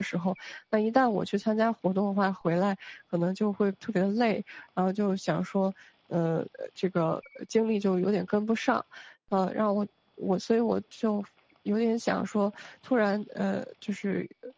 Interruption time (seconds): none

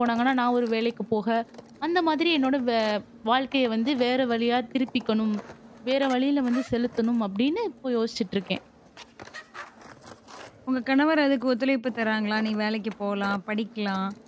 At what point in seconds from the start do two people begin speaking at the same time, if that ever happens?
none

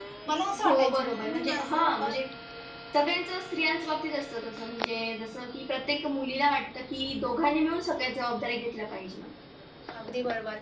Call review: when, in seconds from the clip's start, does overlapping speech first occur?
0.6 s

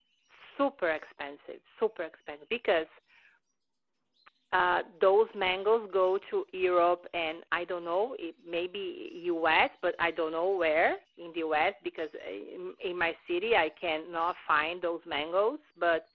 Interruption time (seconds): none

